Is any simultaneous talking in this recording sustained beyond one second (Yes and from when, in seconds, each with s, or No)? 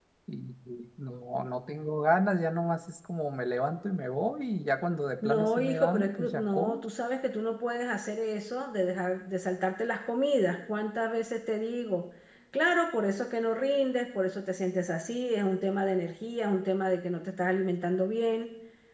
Yes, from 5.2 s